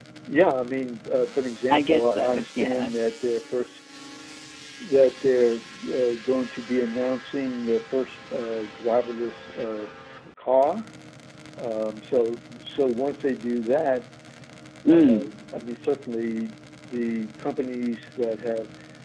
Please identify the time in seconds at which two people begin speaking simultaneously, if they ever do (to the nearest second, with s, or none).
2 s